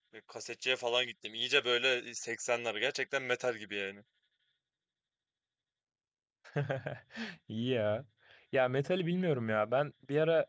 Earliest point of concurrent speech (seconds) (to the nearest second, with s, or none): none